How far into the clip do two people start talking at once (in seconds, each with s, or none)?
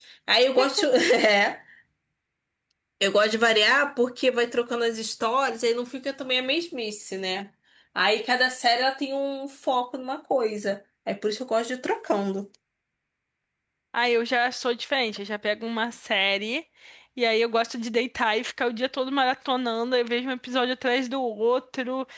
none